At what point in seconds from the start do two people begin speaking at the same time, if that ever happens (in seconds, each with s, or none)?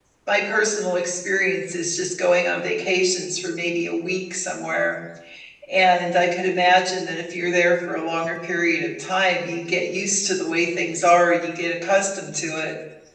none